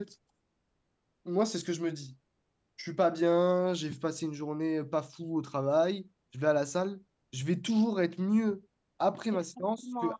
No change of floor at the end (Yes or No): No